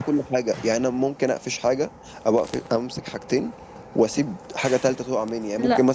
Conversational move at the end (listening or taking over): listening